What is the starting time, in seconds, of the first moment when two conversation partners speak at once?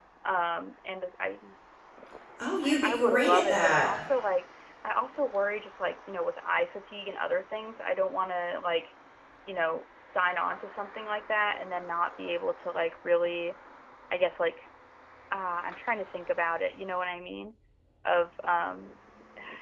2.6 s

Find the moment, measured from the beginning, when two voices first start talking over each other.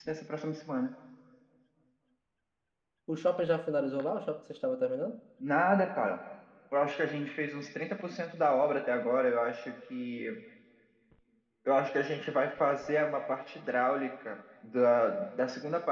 none

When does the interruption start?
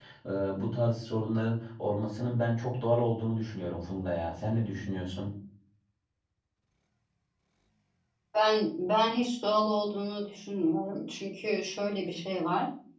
none

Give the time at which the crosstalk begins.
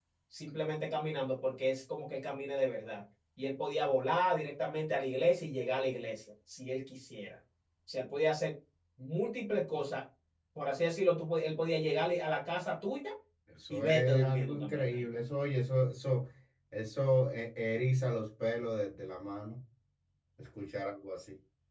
13.7 s

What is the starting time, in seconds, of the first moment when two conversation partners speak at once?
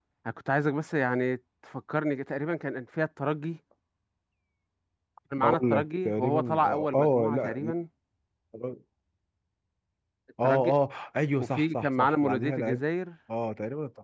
5.4 s

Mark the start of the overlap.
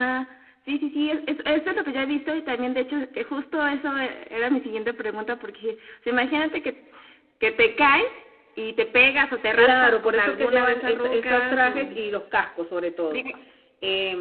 9.6 s

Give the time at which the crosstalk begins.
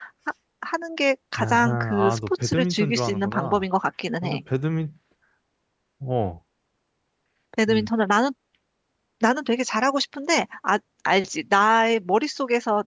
1.4 s

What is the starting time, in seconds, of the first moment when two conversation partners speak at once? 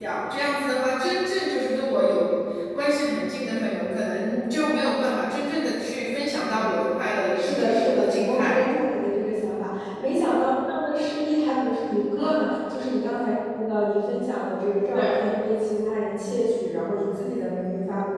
7.3 s

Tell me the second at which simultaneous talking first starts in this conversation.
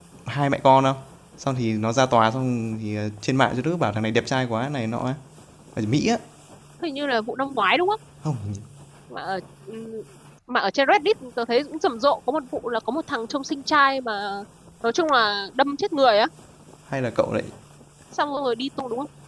none

